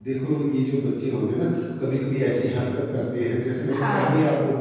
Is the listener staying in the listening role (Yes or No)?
Yes